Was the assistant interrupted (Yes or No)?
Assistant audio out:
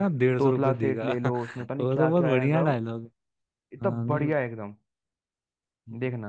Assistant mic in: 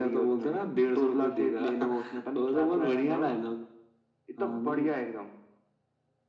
No